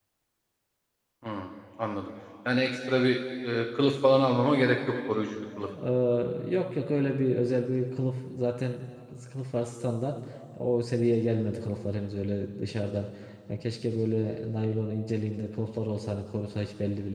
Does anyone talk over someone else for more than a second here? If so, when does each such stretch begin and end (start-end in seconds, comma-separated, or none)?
none